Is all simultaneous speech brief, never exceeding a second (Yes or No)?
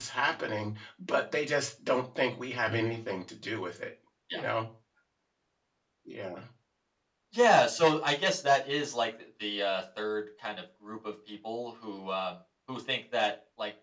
Yes